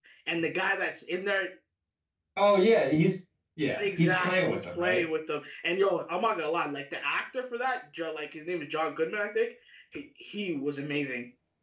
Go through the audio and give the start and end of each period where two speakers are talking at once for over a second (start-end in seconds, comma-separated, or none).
3.8-5.0